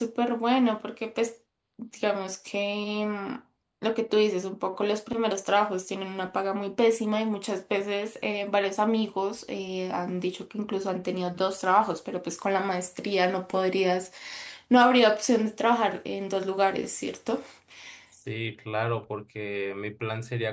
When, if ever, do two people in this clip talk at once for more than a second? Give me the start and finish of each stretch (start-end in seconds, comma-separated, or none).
none